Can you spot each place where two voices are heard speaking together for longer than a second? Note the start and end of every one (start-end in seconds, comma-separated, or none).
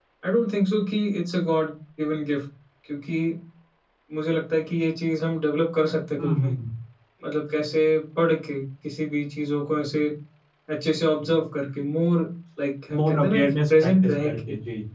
13.0-14.4